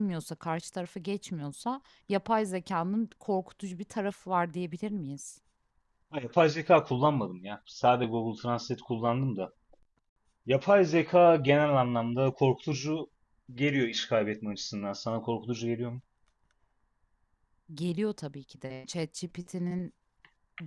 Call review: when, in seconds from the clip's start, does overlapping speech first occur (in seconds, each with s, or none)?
none